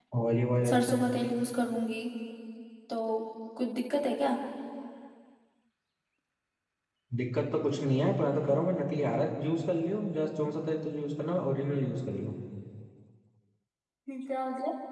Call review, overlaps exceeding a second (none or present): none